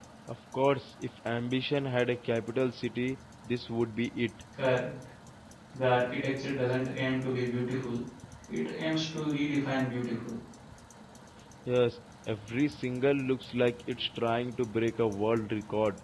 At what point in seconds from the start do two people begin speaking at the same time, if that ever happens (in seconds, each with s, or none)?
none